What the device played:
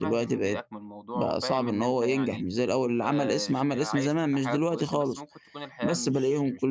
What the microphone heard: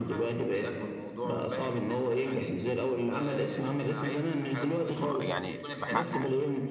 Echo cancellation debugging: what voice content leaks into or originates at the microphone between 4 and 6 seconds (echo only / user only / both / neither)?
both